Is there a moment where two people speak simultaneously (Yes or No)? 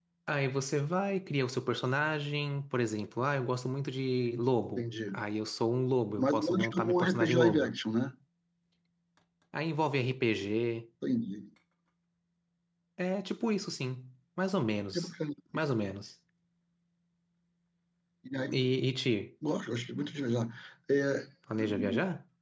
Yes